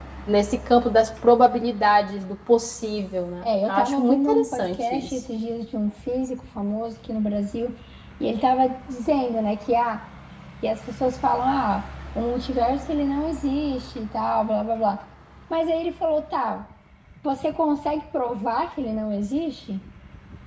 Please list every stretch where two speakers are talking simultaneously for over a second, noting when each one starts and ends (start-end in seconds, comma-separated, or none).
3.4-5.1